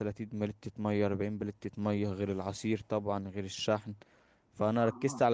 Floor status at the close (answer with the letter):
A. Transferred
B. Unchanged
B